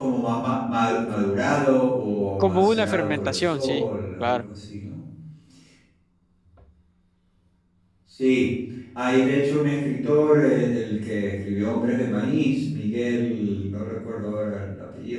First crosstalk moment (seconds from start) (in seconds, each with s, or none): 2.4 s